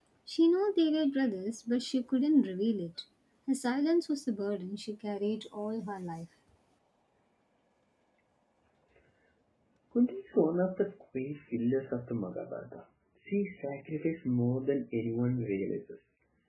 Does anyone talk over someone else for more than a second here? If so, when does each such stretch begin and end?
none

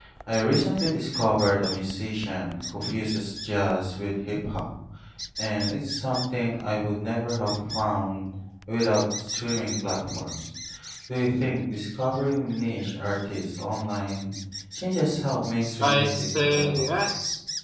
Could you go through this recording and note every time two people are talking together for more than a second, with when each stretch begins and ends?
15.8-17.1

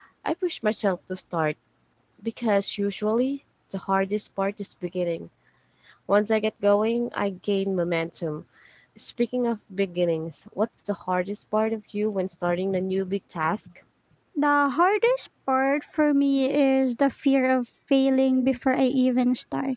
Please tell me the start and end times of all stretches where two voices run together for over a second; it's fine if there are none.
none

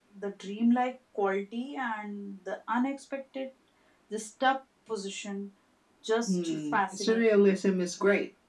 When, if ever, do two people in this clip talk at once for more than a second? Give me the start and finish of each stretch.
6.3-7.5

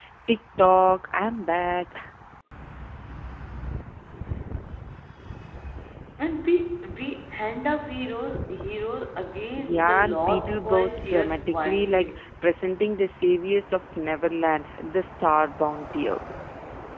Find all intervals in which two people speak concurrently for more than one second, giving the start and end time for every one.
9.6-12.1

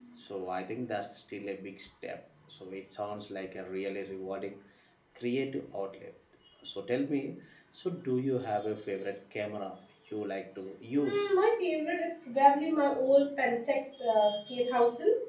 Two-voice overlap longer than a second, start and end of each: none

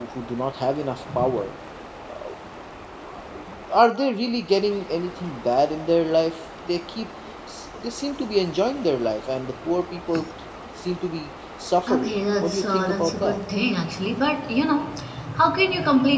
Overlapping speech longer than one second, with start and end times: 11.9-13.4

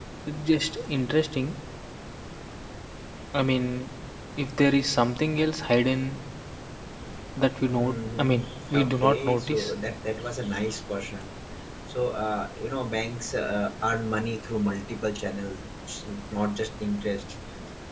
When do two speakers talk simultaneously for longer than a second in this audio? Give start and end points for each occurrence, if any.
7.8-9.7

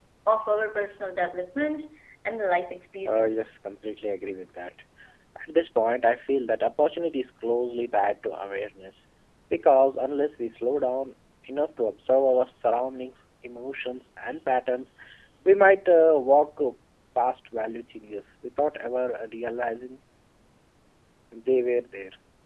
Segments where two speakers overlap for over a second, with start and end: none

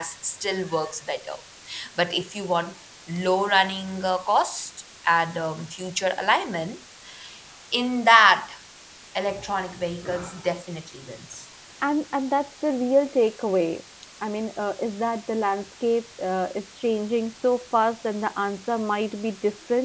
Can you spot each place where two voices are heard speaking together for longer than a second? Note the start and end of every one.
none

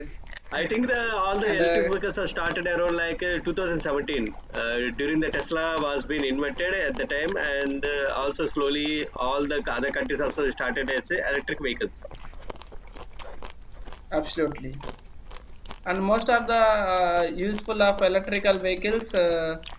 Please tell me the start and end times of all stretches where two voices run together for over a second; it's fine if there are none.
none

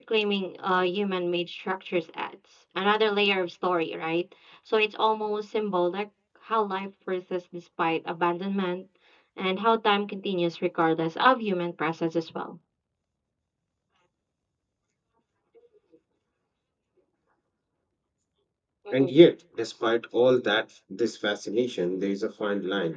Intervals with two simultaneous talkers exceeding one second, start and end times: none

